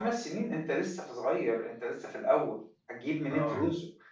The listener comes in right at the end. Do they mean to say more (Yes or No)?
No